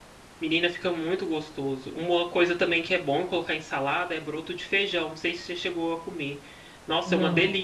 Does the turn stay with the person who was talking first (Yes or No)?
Yes